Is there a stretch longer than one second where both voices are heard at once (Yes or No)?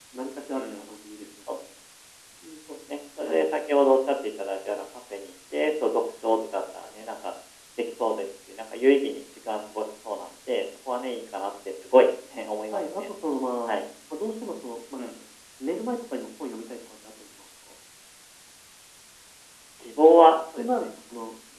No